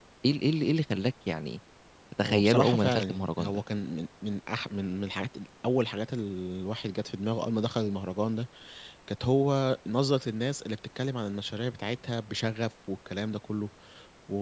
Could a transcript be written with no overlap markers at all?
No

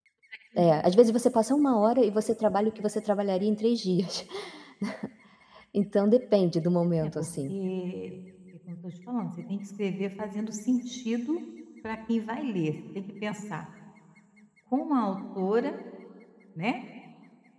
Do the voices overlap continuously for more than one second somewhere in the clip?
No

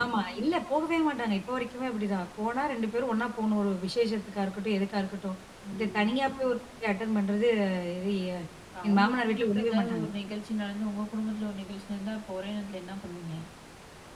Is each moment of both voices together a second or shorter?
No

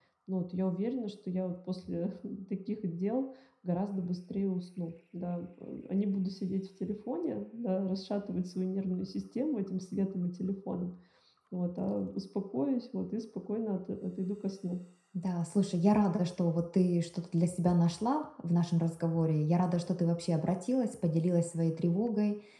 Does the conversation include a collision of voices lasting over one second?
No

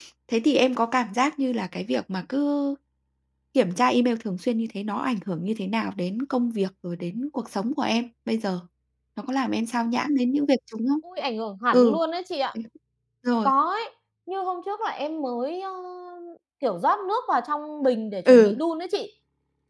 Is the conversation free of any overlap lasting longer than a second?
Yes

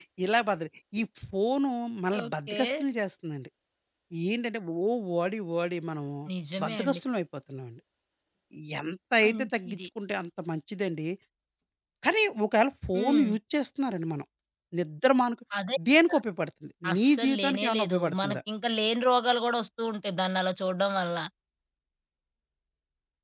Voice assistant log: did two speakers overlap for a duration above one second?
Yes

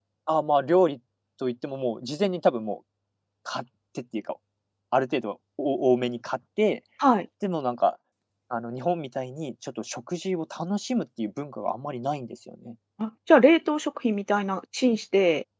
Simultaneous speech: No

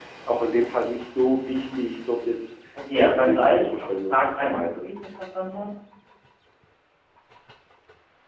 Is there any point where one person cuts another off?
Yes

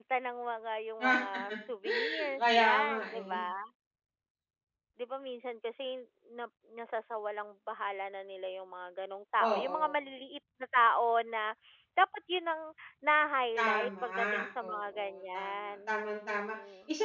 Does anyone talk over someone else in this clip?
Yes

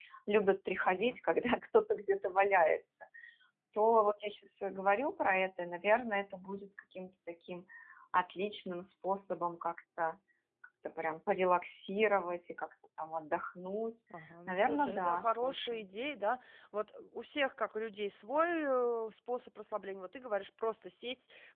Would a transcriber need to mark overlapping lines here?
Yes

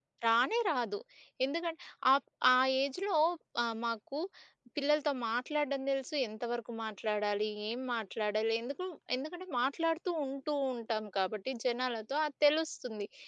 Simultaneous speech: No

